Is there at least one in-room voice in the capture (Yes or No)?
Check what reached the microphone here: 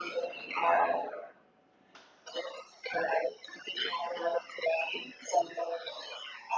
No